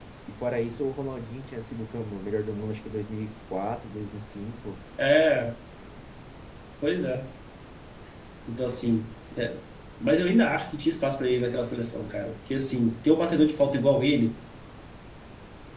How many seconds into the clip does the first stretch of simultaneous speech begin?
none

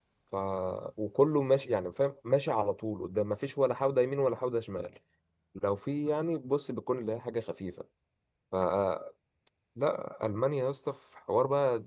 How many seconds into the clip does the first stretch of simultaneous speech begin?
none

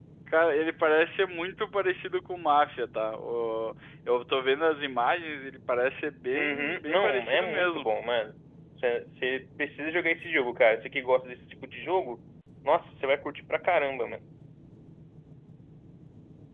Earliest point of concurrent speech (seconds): 6.3 s

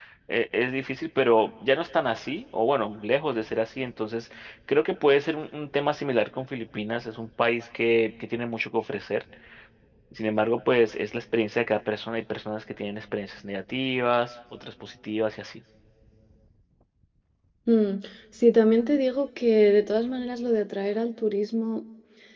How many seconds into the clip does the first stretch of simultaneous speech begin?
none

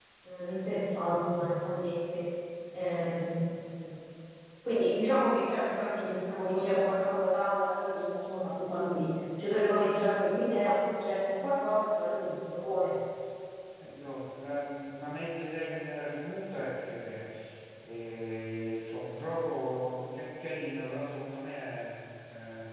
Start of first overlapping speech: none

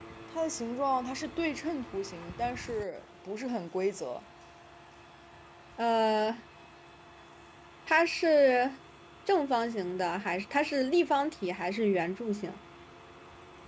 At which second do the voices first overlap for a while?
none

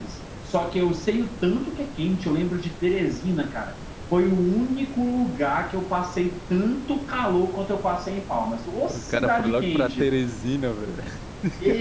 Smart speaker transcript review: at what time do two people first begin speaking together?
8.9 s

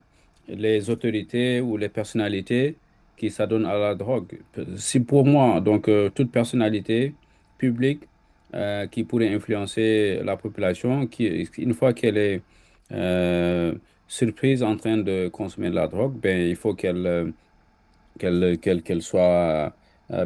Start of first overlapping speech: none

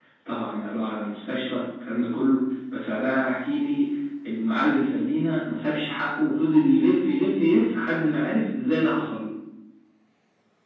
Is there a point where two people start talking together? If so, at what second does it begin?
none

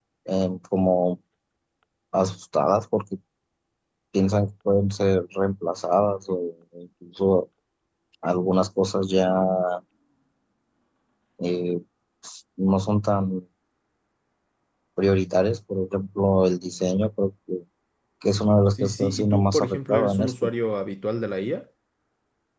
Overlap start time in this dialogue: 18.7 s

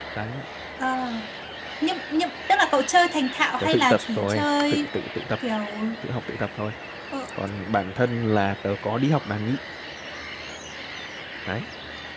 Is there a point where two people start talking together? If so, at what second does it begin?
3.6 s

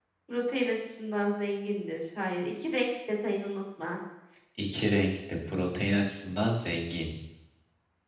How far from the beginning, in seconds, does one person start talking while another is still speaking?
none

